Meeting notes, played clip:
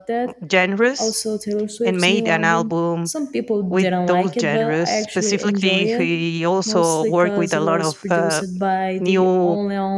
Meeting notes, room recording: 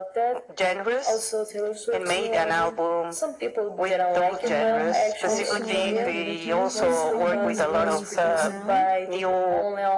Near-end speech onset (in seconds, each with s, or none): 4.4 s